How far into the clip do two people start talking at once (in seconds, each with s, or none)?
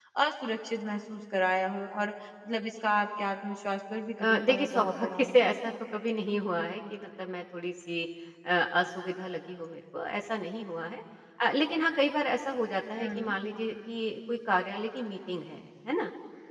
4.2 s